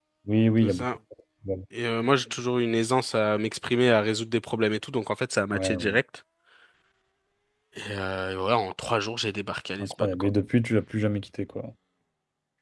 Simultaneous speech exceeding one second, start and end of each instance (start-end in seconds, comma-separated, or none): none